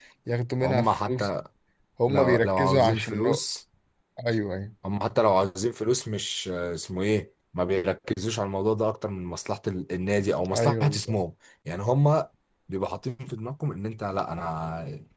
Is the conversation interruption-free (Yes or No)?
No